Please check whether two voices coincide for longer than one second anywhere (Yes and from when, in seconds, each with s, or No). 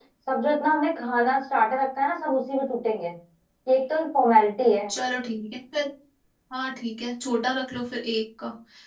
No